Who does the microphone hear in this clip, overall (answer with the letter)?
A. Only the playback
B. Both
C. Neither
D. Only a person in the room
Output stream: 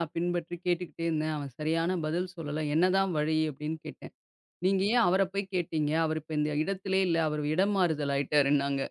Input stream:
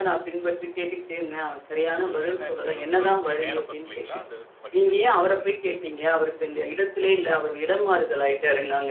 B